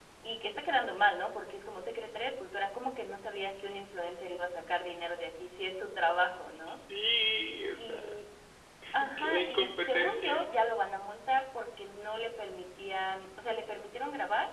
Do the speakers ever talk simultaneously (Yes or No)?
Yes